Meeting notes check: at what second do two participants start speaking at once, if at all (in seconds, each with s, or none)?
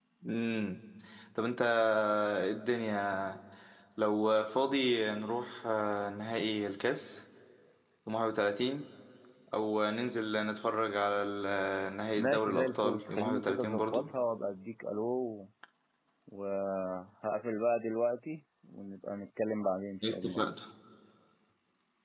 12.2 s